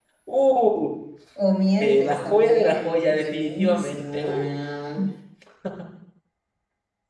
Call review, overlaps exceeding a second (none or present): present